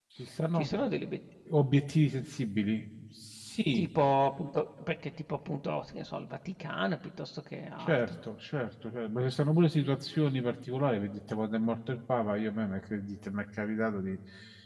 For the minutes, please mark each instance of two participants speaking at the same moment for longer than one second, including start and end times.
none

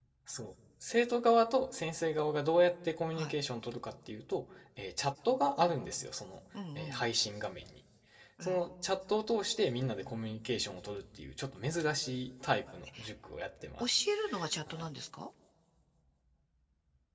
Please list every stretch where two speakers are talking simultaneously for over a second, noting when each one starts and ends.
none

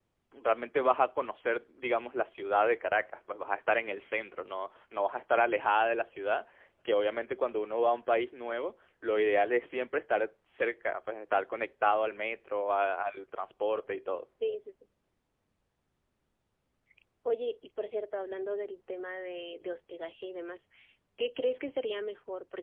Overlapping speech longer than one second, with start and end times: none

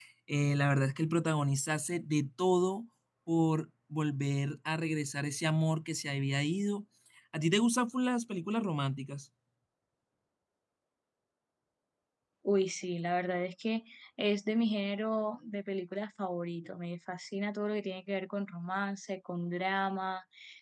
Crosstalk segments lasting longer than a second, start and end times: none

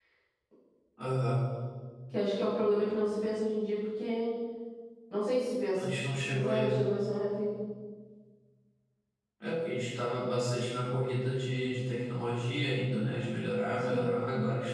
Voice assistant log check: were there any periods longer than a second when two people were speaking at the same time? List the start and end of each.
none

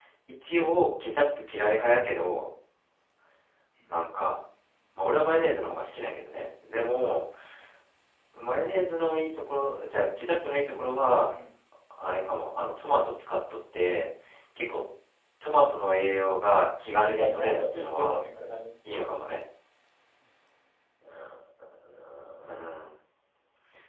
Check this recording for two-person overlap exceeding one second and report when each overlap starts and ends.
16.9-18.2

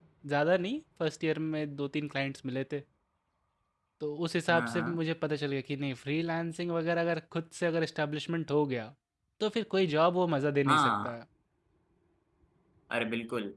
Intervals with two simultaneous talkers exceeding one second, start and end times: none

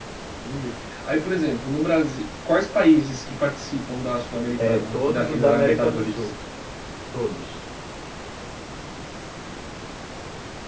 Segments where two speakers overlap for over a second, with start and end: 4.6-6.3

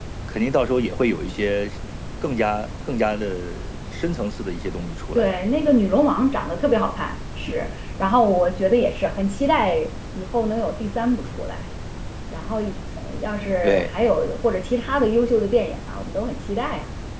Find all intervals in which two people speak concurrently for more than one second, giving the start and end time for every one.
none

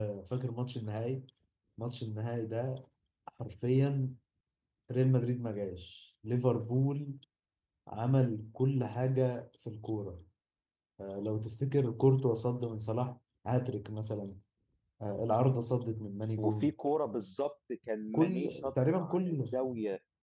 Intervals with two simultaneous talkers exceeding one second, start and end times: 18.1-19.4

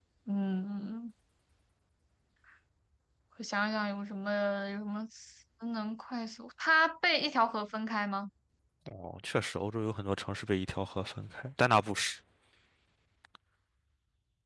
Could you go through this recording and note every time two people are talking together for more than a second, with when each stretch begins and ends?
none

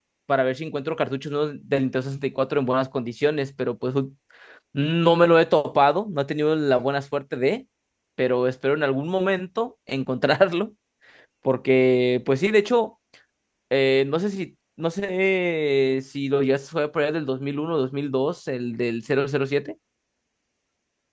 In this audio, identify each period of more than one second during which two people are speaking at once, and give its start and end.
none

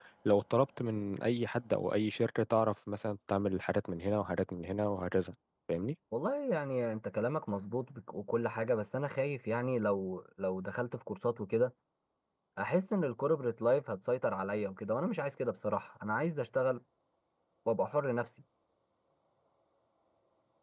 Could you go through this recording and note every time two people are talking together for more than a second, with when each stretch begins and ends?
none

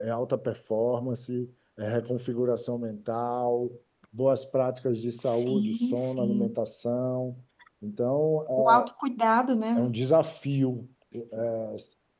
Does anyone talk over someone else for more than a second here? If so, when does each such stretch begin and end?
5.2-6.5

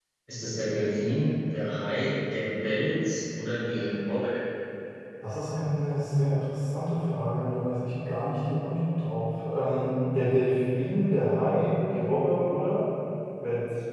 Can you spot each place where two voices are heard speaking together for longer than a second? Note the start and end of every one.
none

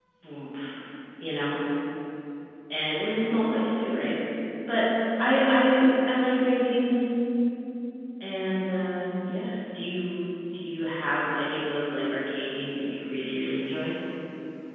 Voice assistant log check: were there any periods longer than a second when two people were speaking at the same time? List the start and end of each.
none

